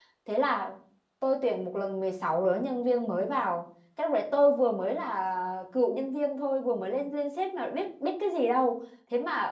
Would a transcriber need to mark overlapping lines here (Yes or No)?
No